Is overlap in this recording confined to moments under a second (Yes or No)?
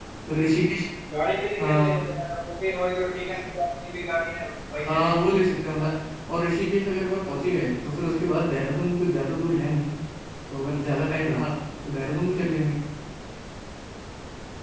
Yes